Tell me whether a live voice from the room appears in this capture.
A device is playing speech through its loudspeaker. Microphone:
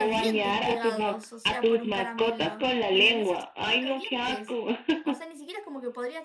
Yes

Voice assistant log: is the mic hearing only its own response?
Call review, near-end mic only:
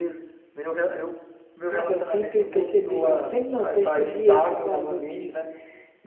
No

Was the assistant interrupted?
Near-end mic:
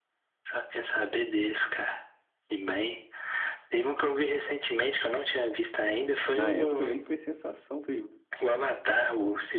Yes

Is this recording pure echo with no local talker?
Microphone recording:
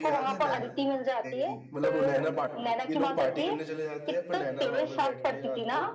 No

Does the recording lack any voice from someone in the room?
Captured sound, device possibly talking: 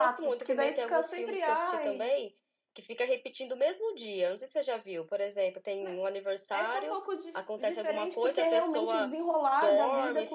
No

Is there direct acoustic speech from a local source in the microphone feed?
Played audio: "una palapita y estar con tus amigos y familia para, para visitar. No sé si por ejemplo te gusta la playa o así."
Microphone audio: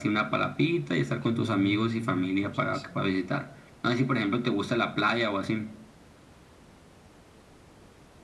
Yes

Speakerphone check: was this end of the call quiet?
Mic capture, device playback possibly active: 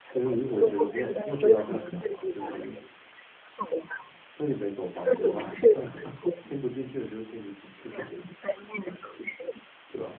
No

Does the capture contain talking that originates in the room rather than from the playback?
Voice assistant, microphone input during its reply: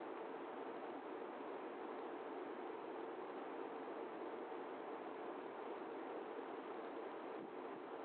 No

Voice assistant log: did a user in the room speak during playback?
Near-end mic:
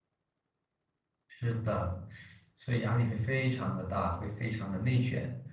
Yes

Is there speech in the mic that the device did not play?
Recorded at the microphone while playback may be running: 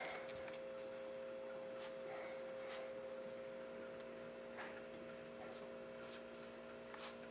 No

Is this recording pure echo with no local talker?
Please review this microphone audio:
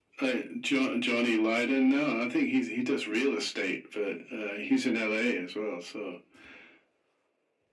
Yes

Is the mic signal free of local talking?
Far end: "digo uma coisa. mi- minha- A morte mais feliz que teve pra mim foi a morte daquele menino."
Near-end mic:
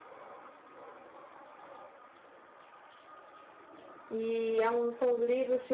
No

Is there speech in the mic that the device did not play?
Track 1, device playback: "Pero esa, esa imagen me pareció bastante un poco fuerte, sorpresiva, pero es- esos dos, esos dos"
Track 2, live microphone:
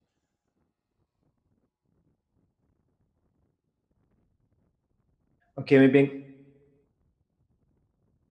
Yes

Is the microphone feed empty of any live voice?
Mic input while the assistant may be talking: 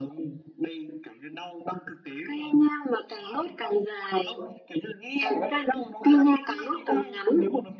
Yes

